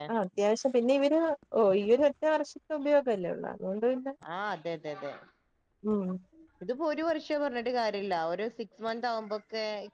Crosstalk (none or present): none